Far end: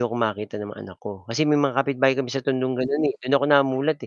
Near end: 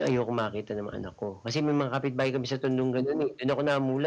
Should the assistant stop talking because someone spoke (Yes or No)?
No